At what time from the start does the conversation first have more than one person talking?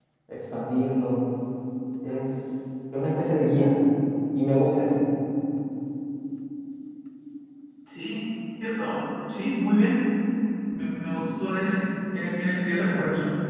none

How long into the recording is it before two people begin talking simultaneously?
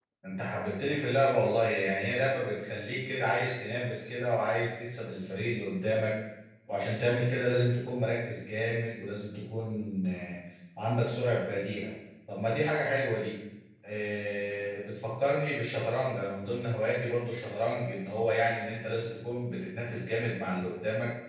none

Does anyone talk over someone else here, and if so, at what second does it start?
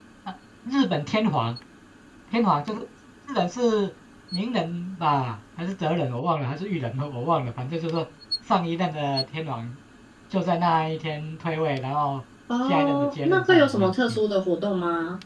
12.7 s

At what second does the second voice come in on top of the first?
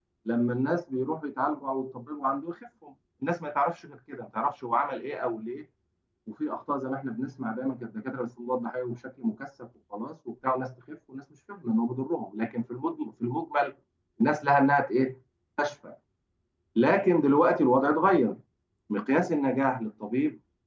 none

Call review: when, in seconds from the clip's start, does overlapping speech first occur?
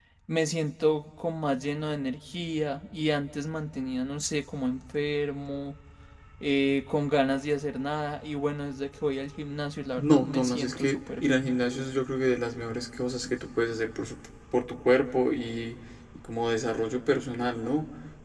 9.9 s

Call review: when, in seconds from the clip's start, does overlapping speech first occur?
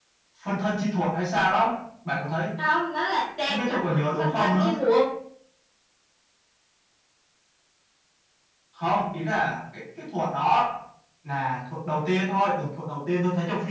3.5 s

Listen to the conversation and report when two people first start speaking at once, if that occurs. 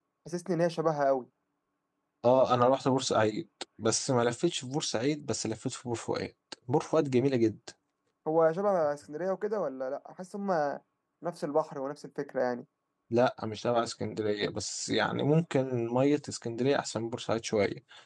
none

